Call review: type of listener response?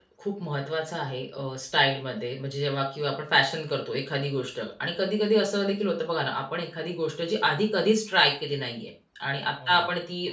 listening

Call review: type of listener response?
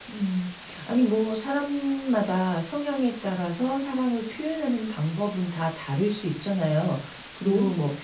listening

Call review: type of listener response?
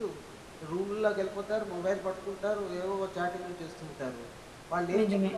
listening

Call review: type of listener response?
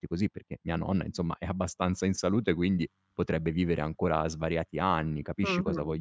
taking over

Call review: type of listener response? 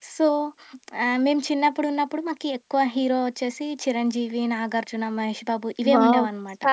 taking over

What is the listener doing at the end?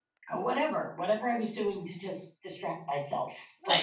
taking over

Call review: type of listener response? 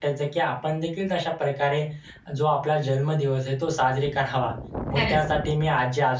listening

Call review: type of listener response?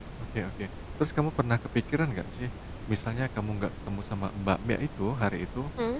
listening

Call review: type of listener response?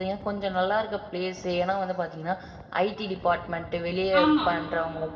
listening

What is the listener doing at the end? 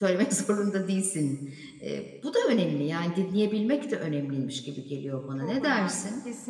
taking over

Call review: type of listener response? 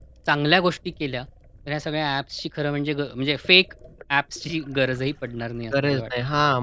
taking over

